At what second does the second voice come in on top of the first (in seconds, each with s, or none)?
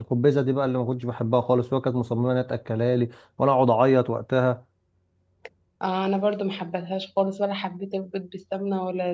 none